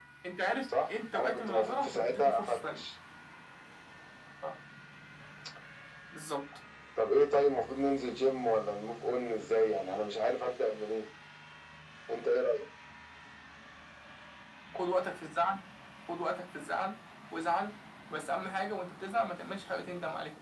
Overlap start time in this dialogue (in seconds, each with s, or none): 0.6 s